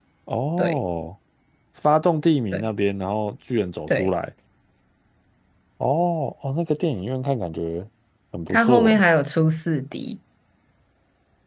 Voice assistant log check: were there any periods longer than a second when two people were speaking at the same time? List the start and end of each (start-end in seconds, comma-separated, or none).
none